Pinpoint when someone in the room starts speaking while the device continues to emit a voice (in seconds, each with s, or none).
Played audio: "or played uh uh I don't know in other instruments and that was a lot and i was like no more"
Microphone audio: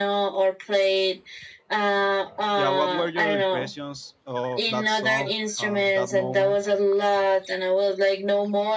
2.5 s